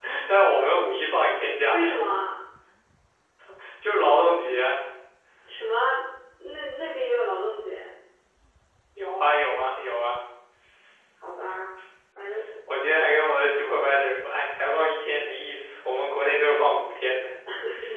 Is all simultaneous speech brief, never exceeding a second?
Yes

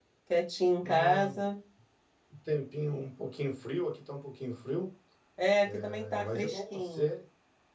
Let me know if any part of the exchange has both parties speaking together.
Yes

